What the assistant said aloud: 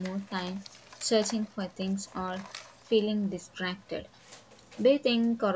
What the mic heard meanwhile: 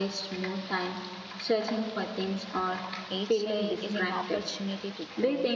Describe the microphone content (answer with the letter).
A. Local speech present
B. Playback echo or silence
A